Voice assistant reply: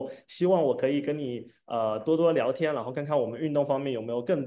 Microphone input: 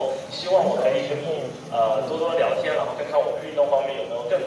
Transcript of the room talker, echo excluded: 很小的时候学过，

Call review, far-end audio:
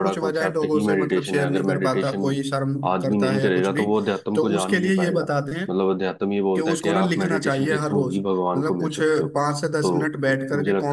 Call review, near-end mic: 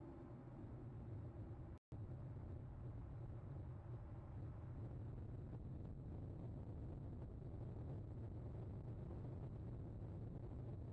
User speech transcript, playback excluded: none

